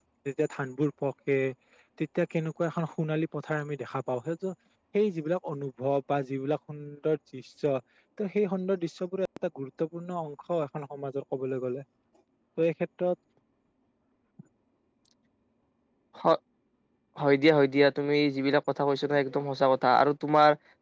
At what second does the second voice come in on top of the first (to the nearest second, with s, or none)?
none